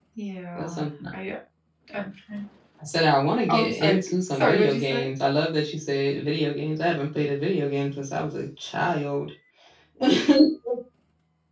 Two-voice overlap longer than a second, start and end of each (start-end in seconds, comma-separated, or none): 3.5-5.1